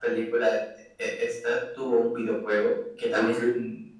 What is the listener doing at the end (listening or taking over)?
listening